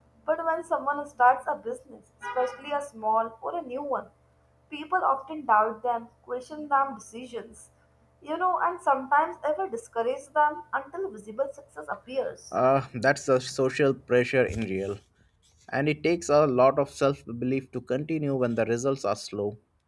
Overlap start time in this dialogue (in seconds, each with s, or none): none